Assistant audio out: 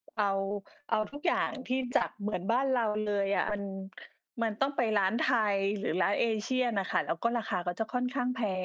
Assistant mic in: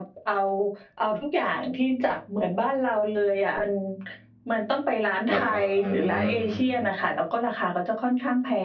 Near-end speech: present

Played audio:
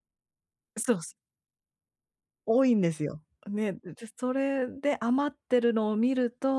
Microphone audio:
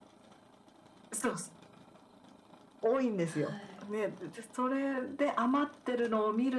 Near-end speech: present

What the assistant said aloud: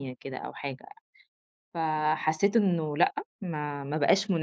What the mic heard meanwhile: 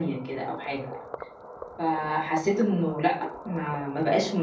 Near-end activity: none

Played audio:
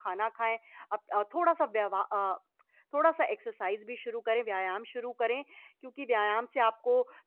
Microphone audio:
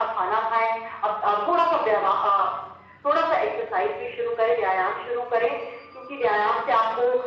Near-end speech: none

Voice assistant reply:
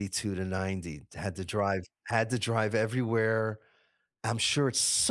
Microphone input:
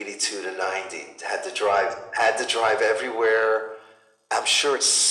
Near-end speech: none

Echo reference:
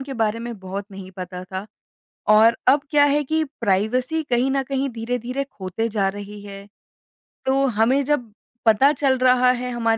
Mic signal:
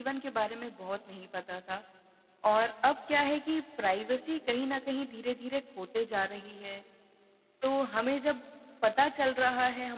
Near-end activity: none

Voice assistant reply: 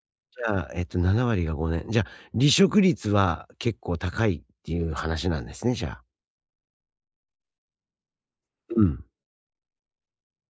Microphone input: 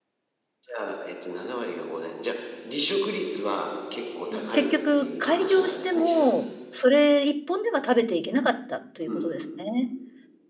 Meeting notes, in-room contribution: present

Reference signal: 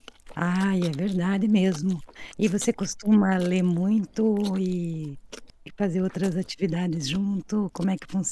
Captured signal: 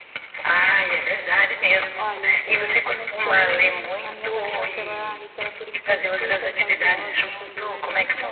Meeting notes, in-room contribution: present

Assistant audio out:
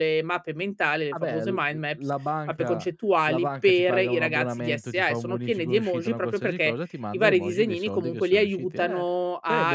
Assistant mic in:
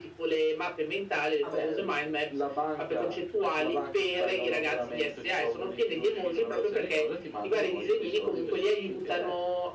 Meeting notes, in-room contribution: none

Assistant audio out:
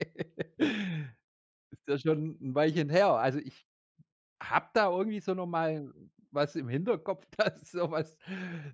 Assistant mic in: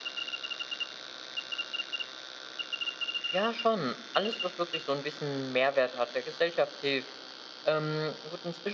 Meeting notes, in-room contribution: present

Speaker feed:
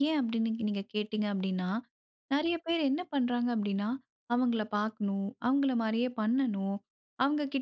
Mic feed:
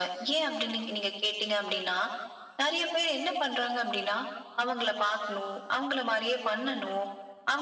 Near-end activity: none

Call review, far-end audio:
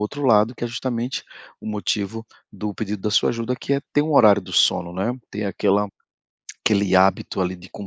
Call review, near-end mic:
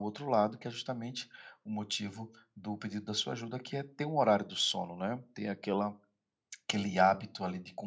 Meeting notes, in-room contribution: none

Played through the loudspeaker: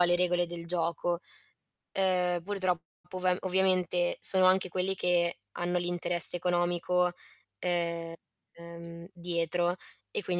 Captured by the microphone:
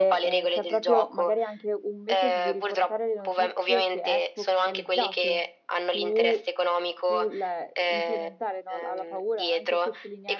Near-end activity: present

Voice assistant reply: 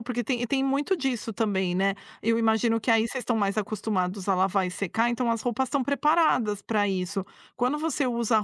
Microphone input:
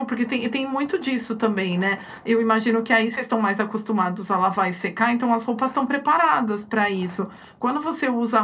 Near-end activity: none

